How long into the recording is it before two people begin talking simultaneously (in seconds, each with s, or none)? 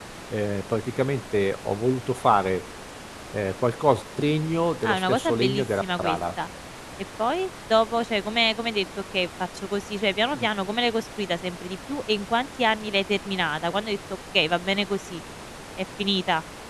4.8 s